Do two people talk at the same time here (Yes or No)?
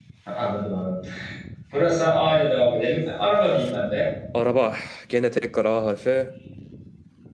No